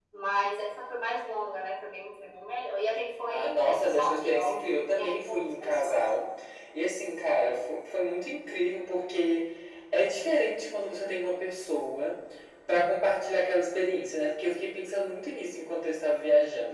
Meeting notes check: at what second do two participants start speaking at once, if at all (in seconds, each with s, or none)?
3.3 s